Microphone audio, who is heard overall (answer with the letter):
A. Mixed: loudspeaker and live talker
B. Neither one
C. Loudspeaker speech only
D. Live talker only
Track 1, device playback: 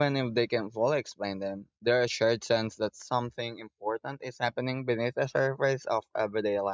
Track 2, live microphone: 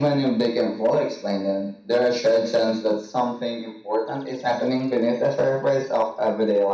C